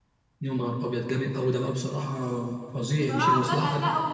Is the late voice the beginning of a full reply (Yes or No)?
Yes